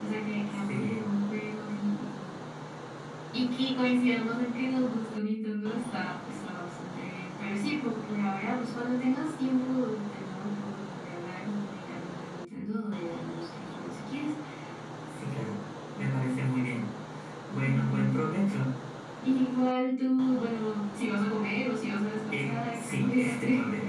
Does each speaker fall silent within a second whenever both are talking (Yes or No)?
No